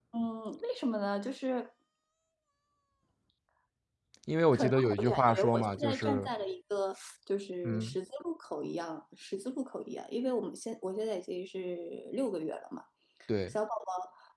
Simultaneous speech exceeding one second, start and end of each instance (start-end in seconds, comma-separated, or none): 4.5-6.3